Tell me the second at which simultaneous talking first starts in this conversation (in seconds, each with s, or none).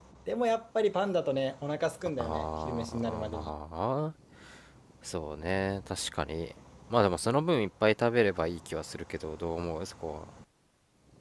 2.2 s